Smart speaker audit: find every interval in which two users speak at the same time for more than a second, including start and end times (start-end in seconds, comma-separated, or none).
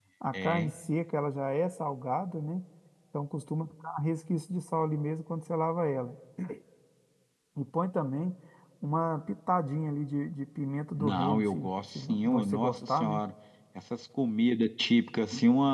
11.0-13.2